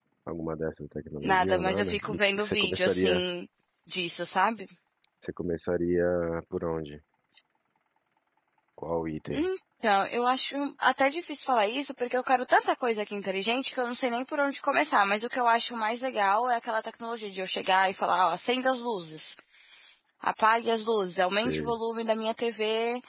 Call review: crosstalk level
present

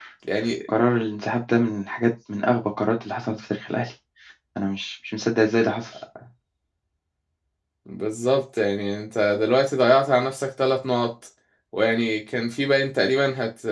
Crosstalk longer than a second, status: none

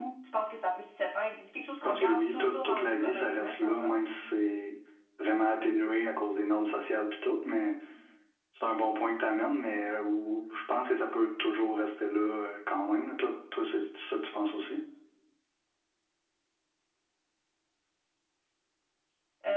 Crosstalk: present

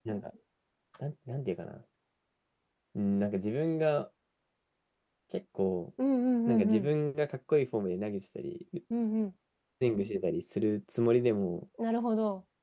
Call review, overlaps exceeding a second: none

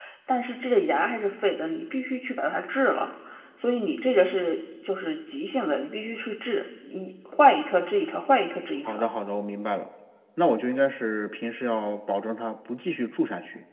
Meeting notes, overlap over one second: none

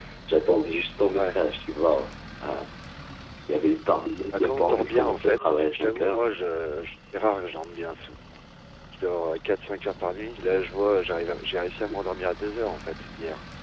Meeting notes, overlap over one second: present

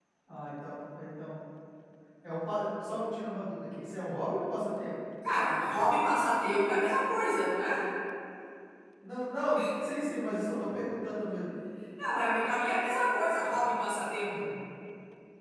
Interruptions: none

